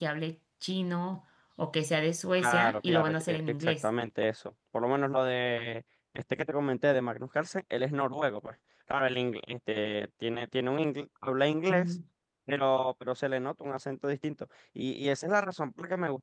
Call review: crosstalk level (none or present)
present